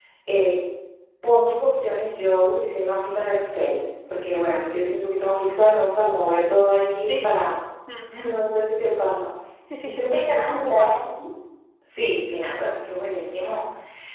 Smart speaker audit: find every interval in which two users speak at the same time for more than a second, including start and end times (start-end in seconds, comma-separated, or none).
9.8-11.1